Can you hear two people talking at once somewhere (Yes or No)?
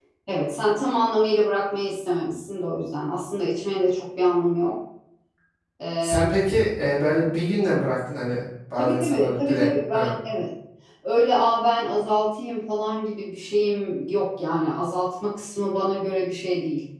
Yes